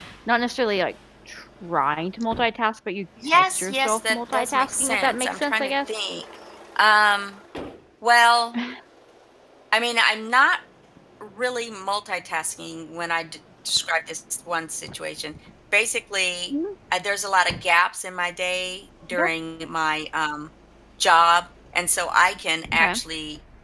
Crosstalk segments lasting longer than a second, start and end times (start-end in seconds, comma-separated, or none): 3.3-5.9